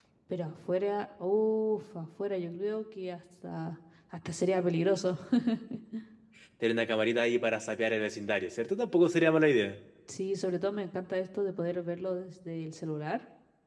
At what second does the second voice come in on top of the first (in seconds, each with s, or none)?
none